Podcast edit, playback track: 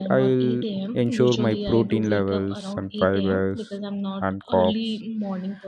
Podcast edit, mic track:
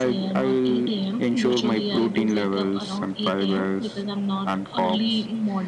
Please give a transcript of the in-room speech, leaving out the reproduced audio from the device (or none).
none